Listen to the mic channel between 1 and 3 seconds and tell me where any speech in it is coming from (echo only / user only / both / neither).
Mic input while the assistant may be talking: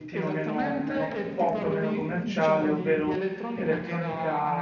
both